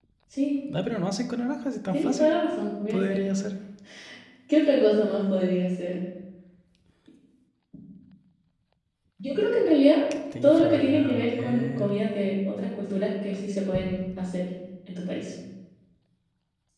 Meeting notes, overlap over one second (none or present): present